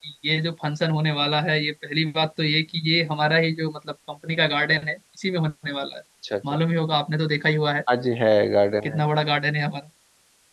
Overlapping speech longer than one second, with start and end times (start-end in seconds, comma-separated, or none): none